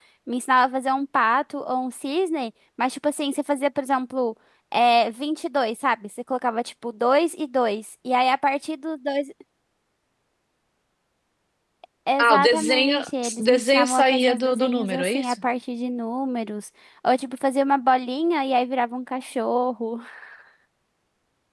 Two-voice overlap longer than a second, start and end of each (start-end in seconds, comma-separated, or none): 12.2-15.3